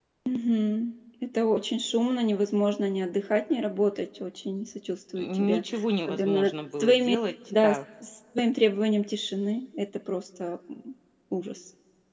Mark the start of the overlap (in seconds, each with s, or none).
5.2 s